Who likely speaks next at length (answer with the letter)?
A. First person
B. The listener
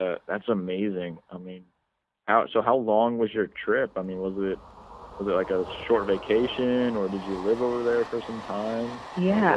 B